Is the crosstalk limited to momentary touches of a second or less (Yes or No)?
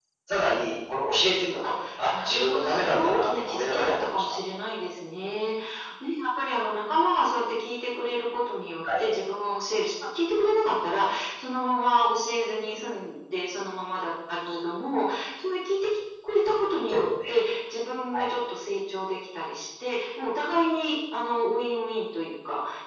No